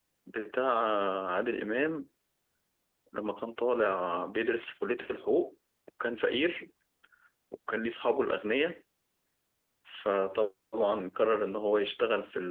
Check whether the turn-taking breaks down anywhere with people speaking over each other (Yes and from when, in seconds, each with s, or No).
No